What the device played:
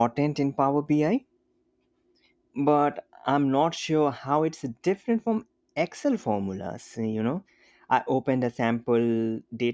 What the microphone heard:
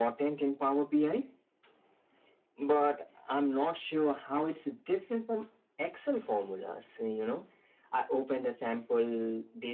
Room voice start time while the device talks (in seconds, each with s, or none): none